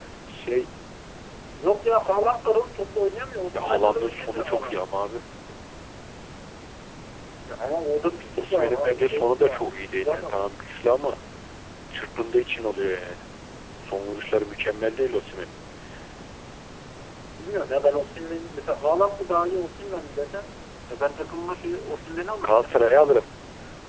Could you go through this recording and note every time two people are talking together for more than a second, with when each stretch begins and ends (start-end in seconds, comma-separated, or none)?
3.5-4.8, 8.4-10.4